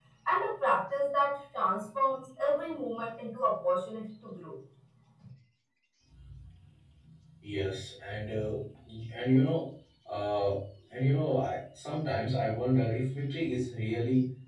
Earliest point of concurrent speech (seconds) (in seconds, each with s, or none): none